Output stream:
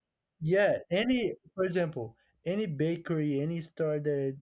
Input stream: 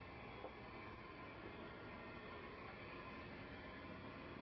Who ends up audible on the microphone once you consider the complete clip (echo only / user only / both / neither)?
neither